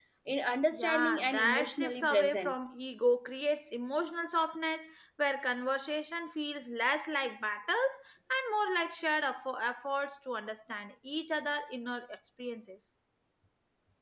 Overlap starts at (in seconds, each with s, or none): 0.7 s